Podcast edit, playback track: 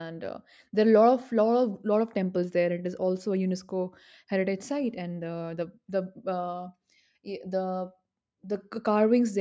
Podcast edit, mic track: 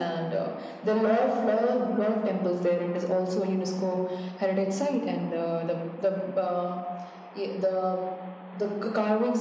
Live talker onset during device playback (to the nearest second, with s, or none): none